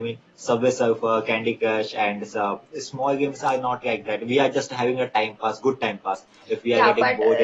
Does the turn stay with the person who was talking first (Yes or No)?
No